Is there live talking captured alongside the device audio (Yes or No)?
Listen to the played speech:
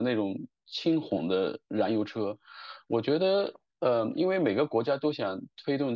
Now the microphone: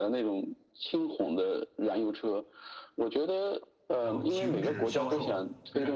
Yes